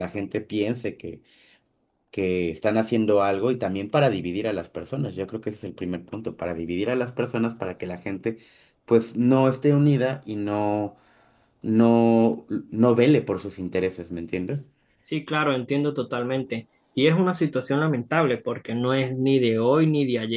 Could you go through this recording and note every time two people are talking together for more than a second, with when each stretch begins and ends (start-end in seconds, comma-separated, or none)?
none